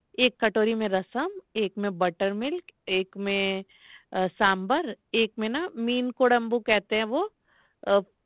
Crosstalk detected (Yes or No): No